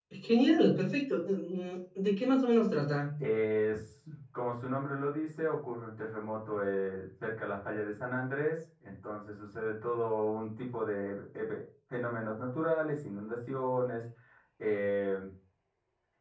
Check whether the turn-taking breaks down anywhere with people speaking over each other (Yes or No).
No